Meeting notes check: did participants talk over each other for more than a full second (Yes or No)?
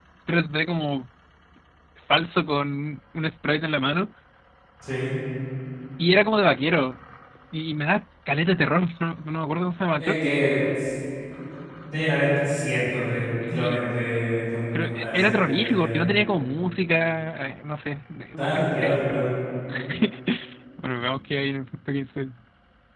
Yes